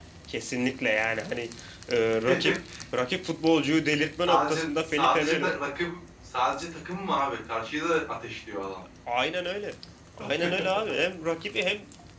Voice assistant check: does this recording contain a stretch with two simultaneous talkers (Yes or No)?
Yes